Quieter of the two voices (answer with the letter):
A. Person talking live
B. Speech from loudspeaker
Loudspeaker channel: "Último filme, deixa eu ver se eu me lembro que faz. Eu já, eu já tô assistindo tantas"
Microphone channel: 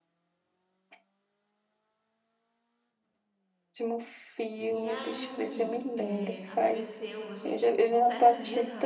A